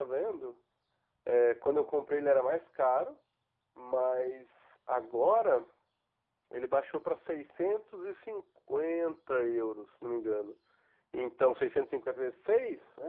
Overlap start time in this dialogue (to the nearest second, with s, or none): none